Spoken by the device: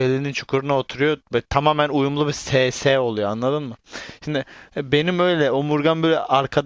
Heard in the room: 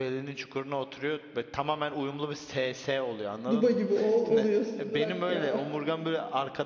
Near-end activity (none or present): present